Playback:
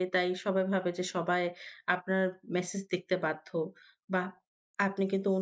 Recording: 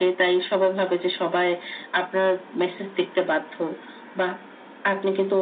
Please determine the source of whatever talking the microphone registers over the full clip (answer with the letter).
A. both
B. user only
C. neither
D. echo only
D